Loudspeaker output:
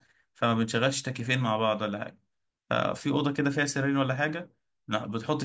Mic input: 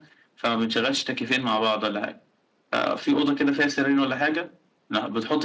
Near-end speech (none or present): none